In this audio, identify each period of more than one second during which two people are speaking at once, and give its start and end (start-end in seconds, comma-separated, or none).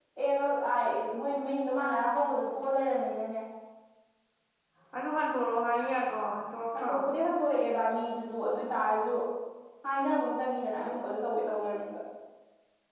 none